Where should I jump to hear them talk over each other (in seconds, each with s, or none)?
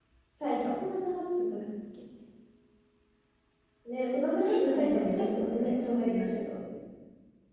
4.4 s